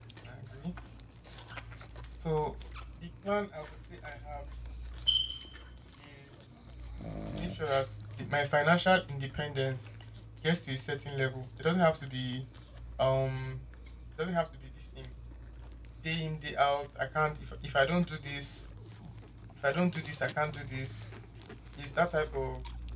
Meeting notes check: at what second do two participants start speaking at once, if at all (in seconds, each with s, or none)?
none